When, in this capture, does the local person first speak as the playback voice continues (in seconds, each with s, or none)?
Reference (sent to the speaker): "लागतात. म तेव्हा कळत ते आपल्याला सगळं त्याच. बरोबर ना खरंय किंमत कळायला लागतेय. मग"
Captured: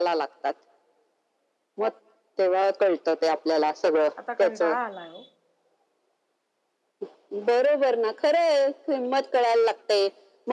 4.2 s